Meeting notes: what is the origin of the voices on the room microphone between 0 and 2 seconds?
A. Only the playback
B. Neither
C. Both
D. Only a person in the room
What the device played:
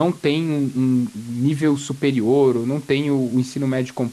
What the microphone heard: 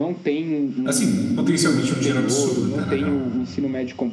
C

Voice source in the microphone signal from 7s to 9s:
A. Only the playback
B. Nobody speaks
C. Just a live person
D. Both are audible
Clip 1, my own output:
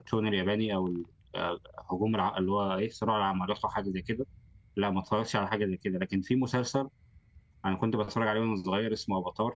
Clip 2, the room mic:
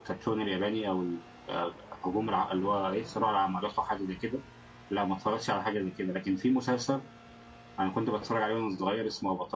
A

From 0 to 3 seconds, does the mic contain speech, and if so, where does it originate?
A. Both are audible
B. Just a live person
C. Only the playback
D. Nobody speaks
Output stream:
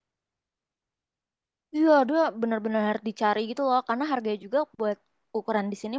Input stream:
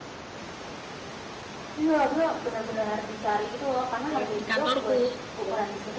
C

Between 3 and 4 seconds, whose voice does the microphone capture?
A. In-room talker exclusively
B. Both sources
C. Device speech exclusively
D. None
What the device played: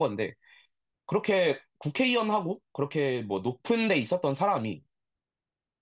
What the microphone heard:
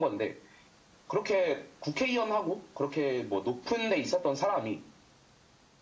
C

